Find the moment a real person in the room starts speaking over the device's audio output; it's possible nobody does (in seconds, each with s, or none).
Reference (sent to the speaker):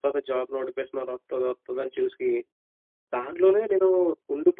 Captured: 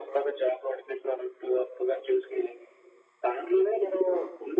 none